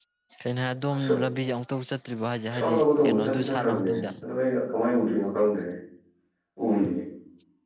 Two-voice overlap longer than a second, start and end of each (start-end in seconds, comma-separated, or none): 2.5-4.1